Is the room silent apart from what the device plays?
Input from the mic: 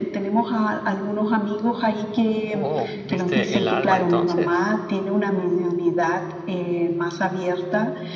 No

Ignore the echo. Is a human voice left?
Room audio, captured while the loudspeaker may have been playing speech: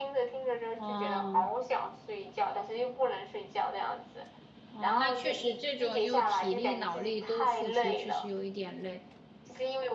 Yes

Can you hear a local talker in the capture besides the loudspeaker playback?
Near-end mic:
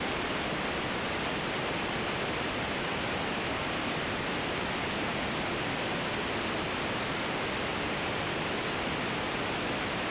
No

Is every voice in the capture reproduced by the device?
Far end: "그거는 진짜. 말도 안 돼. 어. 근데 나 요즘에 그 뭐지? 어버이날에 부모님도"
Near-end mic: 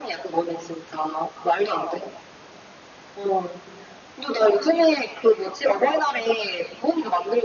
Yes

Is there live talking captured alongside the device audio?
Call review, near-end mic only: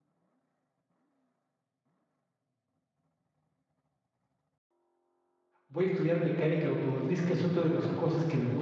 Yes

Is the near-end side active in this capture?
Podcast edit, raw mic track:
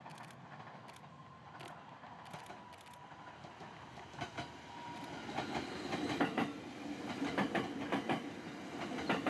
No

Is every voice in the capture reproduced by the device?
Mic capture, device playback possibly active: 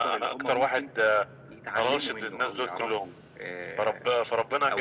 Yes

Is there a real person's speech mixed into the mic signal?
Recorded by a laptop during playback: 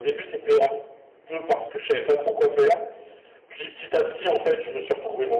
No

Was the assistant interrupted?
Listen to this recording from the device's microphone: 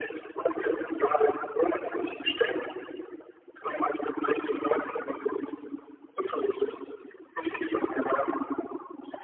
No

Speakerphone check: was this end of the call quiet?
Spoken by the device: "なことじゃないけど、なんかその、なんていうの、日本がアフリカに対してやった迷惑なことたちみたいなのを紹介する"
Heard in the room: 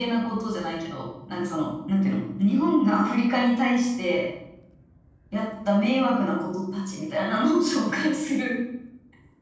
Yes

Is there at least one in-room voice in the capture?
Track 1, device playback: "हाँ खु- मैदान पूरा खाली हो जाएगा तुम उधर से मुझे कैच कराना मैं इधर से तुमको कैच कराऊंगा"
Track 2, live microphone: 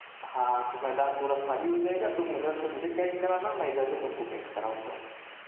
No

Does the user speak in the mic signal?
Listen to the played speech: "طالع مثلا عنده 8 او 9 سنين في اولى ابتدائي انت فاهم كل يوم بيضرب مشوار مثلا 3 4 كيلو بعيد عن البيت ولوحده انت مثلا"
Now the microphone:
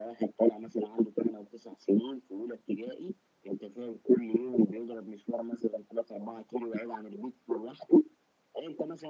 No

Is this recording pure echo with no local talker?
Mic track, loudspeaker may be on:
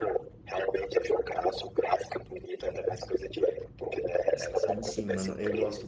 No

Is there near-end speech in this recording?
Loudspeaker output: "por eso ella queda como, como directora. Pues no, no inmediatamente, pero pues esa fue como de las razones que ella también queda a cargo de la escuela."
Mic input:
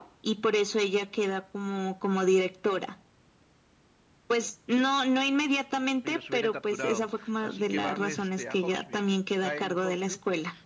Yes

